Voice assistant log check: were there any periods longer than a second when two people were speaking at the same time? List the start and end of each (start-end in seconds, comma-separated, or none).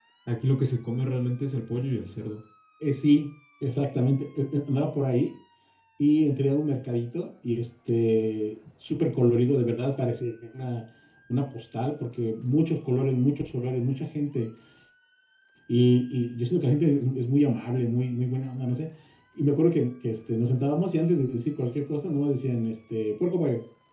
none